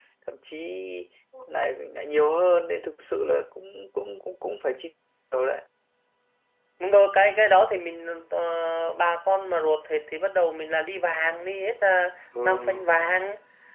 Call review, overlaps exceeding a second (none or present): none